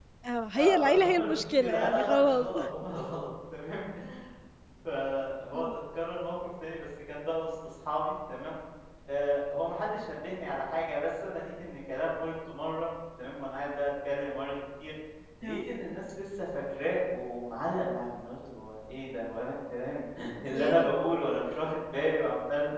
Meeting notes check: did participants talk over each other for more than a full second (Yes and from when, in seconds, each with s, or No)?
Yes, from 0.6 s